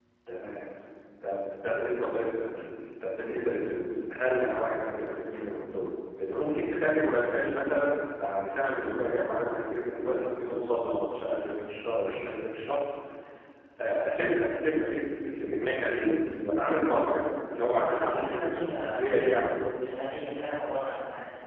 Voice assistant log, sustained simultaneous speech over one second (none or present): present